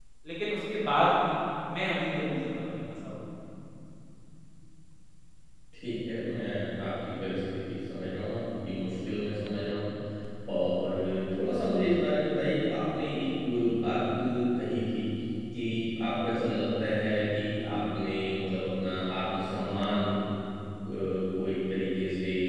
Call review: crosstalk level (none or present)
none